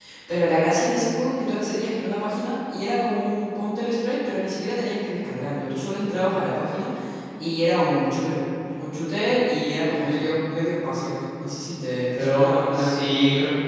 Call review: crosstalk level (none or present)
present